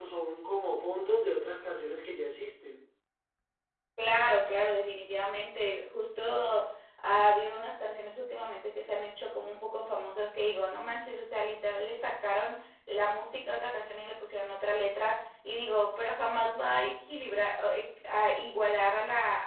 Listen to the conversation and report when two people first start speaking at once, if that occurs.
none

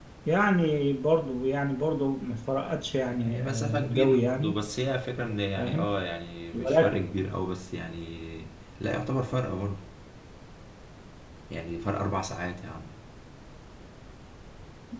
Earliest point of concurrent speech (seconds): 3.2 s

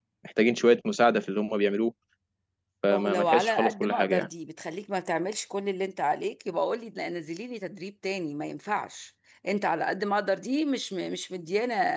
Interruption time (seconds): 2.9 s

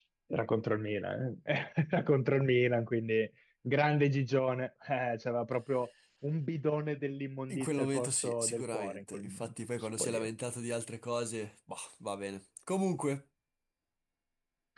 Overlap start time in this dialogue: 7.5 s

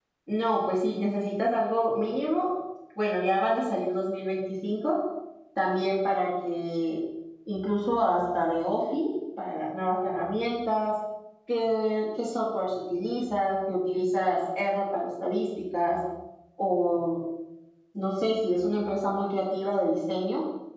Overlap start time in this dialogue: none

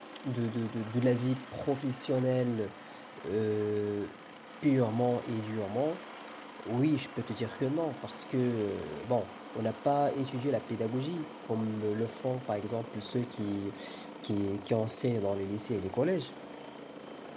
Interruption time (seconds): none

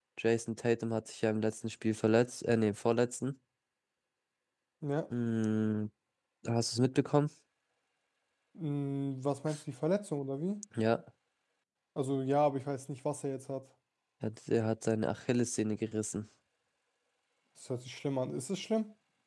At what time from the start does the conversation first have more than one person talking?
none

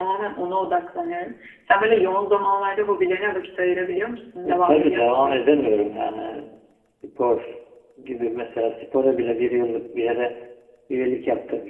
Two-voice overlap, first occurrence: 4.4 s

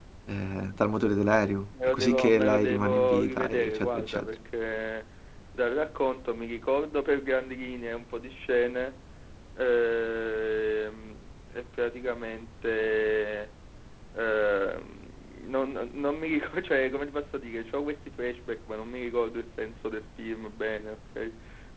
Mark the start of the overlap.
1.7 s

